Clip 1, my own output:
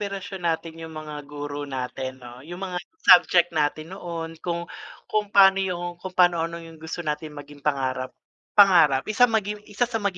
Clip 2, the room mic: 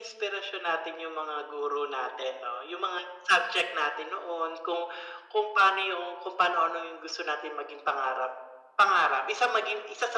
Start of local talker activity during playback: none

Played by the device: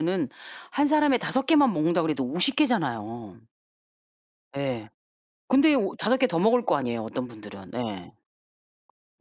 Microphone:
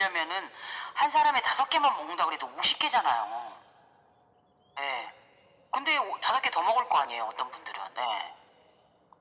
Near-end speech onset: none

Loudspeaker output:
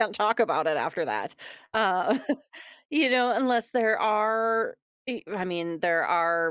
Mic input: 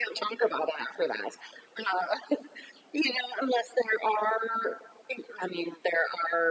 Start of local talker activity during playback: none

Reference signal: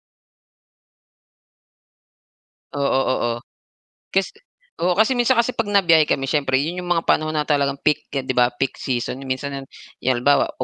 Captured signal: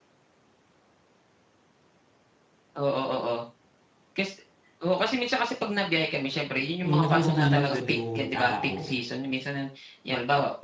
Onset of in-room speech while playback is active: 6.8 s

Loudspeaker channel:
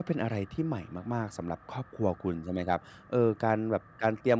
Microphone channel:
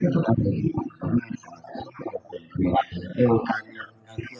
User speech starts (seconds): none

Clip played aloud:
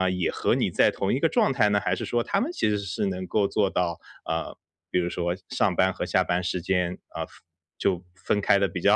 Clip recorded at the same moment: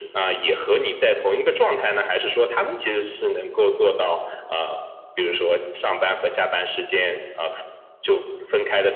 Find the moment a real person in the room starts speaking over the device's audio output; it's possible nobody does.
none

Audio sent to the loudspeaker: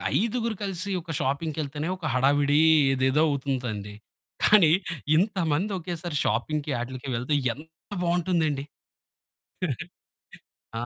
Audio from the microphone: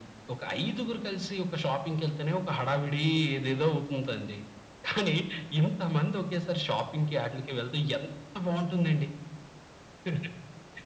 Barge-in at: none

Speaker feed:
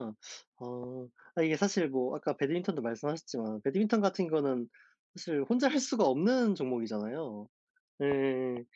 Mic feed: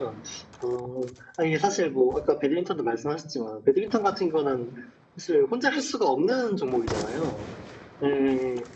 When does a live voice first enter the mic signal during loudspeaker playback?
none

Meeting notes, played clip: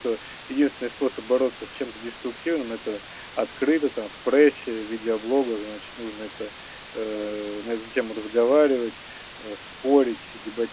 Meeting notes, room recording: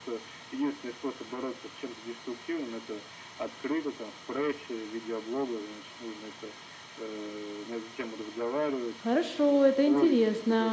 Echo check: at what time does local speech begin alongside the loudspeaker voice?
9.0 s

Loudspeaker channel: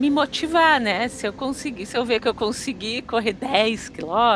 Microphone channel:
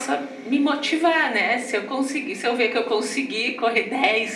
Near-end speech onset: none

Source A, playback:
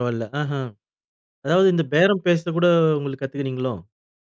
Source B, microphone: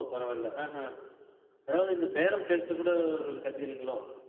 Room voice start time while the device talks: none

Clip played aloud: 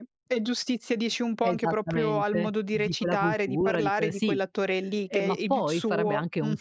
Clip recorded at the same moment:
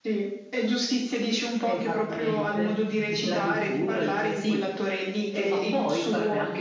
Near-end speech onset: none

